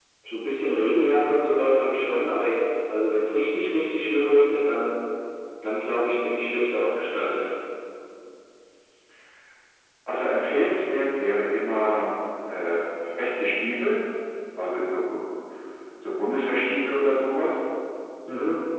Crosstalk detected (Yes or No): No